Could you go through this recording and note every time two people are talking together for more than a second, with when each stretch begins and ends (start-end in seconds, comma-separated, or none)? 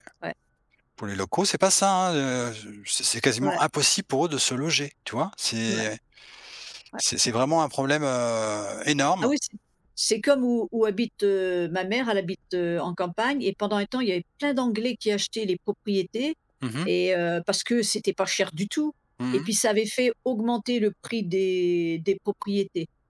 none